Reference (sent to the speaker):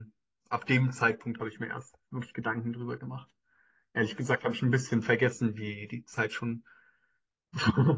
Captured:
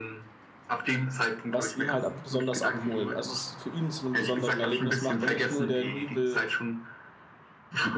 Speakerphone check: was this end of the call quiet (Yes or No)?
No